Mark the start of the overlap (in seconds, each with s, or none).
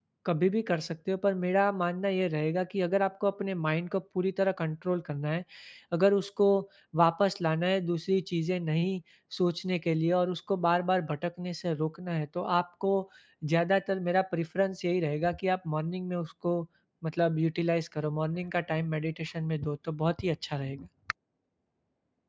none